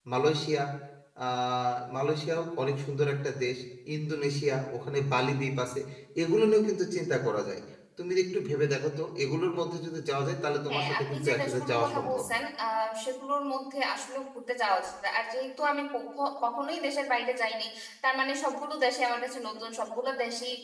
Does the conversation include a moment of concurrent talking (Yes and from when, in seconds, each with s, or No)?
Yes, from 10.7 s